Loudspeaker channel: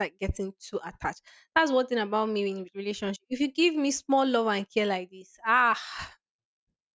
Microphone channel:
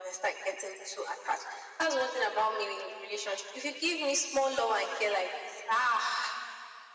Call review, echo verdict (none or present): present